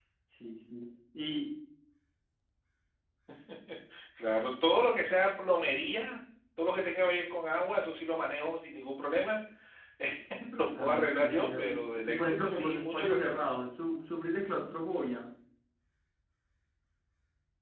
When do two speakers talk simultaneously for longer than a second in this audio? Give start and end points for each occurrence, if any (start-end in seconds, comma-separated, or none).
10.7-13.4